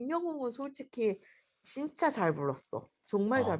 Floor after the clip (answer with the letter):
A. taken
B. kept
A